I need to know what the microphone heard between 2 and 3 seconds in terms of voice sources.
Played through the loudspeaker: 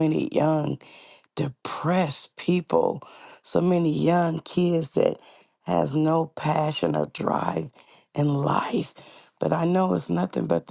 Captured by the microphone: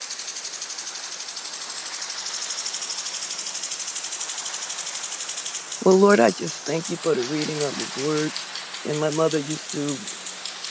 neither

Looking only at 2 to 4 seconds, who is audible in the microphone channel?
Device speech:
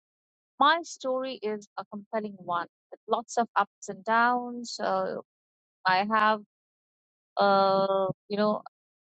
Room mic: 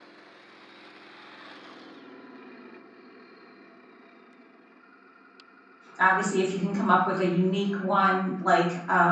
neither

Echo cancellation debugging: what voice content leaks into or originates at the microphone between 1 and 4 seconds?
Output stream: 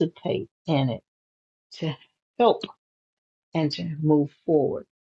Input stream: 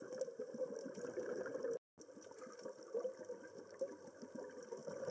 neither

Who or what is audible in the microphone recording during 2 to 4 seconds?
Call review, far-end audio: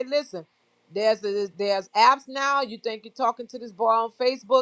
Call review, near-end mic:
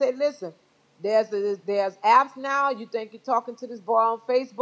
echo only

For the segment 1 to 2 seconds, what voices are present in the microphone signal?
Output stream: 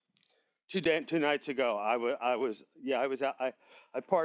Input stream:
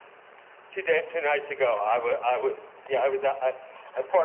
echo only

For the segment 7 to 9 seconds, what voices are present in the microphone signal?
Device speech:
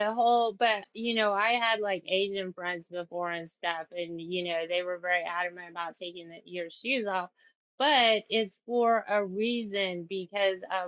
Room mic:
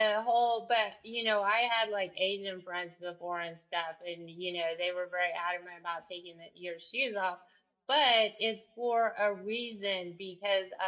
echo only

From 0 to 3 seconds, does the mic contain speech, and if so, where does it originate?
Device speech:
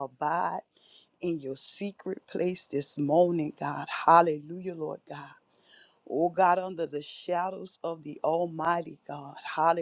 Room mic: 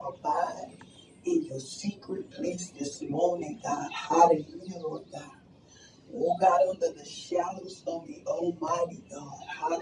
echo only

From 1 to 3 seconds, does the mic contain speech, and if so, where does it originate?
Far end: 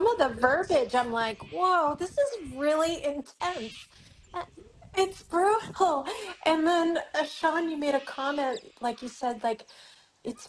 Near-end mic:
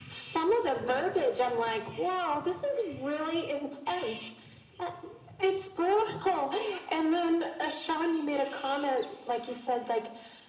echo only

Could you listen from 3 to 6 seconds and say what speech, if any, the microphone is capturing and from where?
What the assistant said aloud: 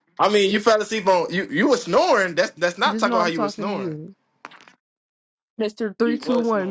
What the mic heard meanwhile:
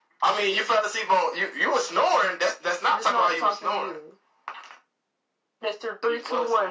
echo only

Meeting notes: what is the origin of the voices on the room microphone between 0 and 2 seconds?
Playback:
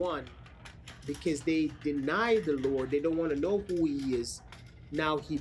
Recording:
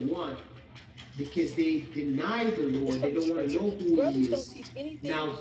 echo only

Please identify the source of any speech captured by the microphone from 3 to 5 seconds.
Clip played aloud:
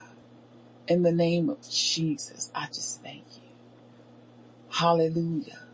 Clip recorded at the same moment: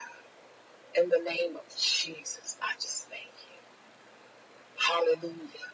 echo only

